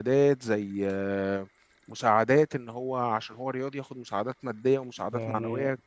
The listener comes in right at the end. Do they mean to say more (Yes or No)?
No